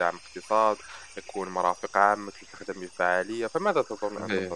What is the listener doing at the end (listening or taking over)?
taking over